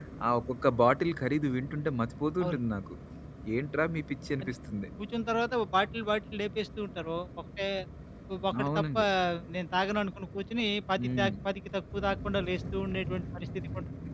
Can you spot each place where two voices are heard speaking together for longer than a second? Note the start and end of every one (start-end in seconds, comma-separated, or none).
none